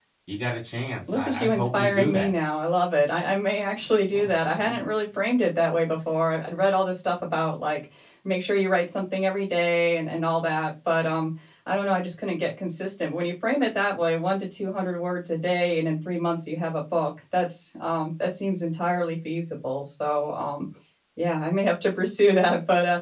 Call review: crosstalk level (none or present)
present